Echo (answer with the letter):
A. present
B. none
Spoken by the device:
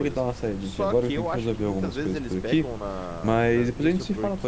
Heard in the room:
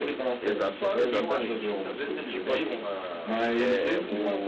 A